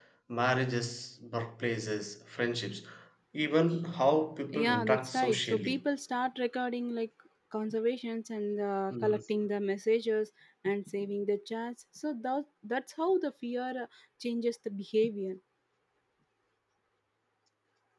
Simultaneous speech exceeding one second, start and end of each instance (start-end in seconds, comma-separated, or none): 4.5-5.8